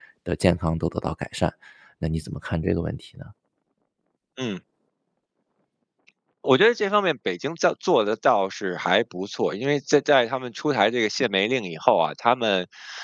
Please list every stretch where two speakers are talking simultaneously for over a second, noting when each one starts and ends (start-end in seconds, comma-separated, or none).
none